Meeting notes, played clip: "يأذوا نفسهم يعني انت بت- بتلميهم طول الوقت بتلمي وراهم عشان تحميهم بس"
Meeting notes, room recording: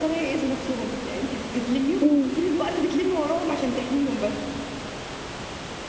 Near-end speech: present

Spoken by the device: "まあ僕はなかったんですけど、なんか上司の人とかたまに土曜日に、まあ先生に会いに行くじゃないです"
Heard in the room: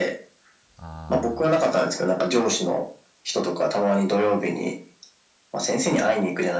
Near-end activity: present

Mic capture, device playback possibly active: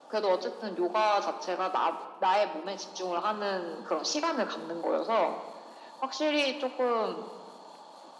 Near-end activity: none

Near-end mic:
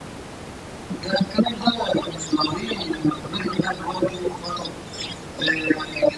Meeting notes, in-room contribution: none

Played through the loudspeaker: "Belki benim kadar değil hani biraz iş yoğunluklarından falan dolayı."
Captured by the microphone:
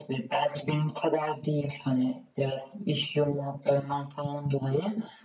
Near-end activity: none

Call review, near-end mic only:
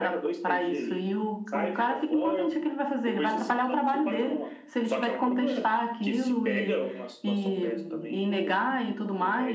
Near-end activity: none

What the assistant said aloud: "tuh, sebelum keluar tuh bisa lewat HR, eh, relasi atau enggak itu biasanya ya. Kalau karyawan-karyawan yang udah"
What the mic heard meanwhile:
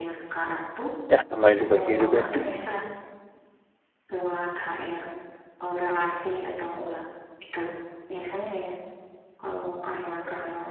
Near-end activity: present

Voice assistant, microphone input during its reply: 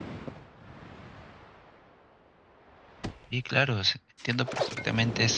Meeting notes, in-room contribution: present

